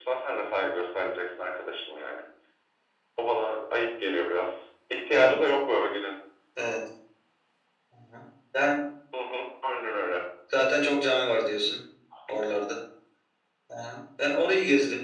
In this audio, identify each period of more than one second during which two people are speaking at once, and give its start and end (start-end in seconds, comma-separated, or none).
none